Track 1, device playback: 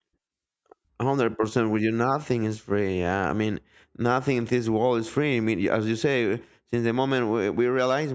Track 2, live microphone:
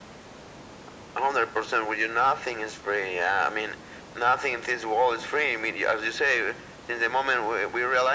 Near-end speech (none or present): none